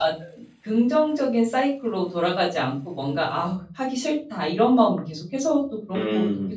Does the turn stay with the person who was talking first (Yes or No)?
No